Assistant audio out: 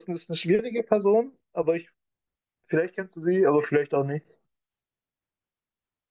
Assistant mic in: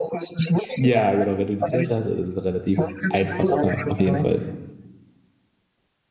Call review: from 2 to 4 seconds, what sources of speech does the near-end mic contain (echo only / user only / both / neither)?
both